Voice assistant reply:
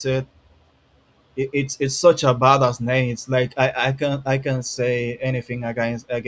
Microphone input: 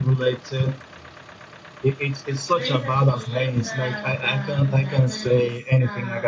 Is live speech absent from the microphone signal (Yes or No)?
No